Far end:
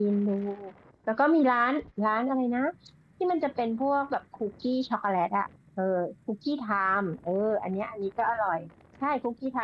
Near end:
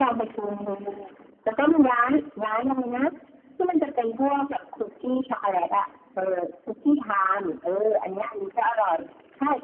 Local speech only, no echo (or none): none